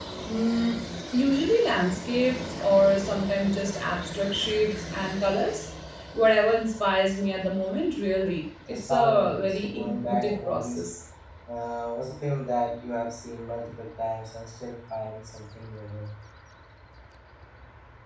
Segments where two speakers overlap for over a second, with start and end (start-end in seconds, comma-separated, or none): 8.7-10.9